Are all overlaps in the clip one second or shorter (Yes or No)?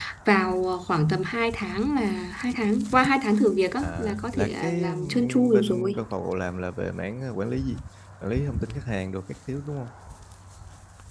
No